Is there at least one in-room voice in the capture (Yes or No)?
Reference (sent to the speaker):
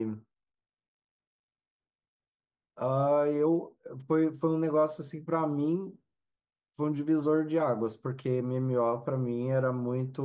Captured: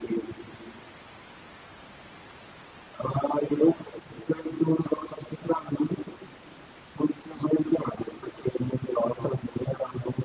No